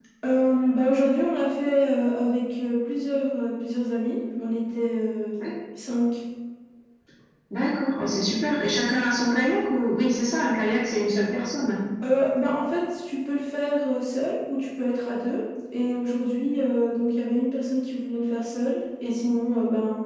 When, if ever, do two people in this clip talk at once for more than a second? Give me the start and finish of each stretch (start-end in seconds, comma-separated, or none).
none